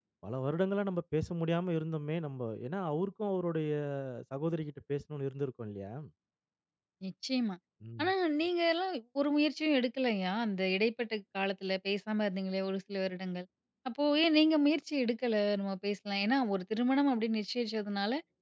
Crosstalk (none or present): none